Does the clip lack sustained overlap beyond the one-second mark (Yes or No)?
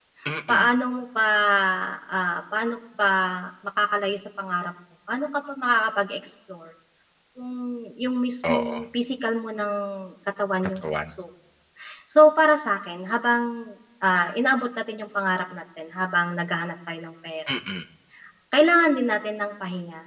Yes